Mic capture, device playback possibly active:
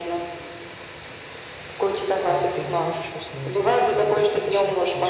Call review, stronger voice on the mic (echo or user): echo